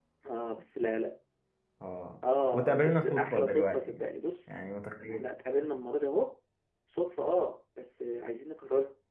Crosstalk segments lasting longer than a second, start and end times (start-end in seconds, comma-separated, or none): 2.5-4.0